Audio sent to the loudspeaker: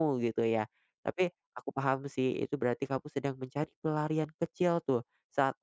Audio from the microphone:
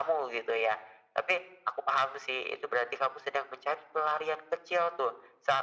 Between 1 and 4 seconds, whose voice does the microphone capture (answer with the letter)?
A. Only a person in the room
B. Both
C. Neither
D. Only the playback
D